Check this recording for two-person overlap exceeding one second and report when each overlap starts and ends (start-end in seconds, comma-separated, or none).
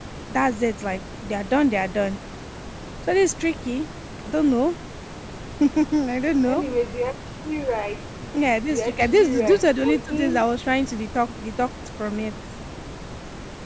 8.7-10.4